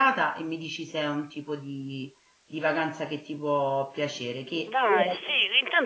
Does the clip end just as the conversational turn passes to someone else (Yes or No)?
Yes